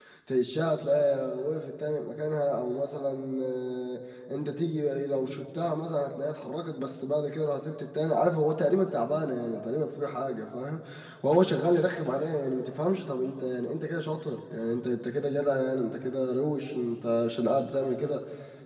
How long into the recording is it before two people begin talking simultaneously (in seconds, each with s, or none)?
none